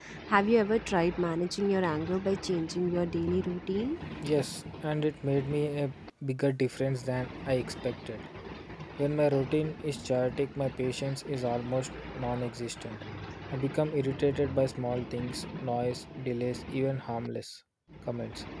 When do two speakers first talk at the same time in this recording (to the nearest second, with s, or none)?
none